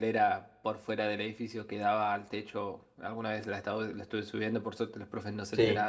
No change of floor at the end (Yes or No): Yes